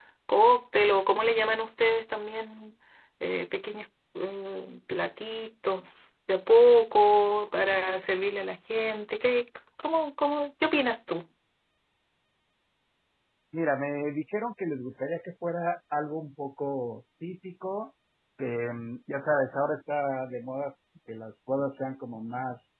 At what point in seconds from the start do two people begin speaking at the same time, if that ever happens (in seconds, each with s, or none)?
none